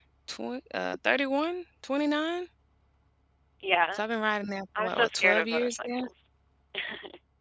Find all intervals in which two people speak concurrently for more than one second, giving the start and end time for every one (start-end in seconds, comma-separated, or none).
4.8-6.0